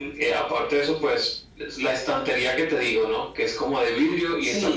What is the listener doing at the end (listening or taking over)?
taking over